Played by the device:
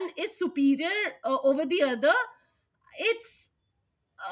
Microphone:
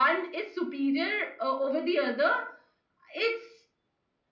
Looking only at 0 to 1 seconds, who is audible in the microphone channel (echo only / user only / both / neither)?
echo only